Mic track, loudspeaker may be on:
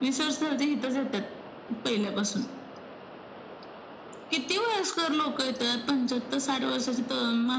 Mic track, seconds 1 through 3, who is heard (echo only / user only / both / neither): echo only